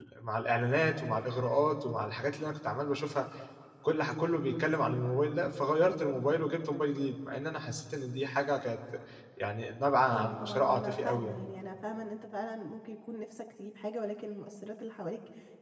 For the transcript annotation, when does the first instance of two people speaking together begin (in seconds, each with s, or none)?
10.1 s